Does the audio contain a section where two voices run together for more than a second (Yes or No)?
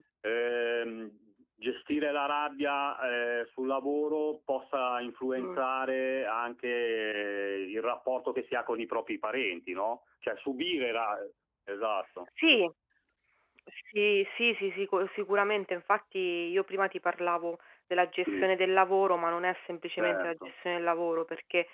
No